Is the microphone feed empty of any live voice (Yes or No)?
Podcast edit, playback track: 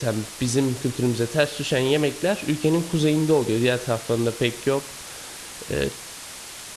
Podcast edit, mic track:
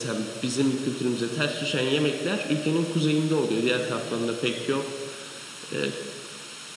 Yes